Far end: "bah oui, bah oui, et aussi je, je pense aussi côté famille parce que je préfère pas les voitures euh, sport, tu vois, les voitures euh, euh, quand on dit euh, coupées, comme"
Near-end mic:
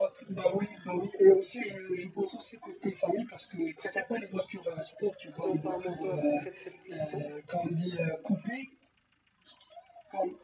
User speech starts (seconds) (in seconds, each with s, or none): 5.3 s